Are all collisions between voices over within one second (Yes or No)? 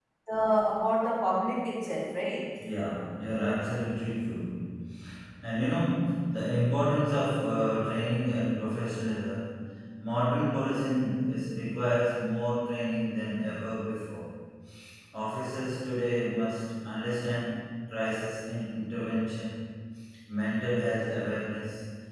Yes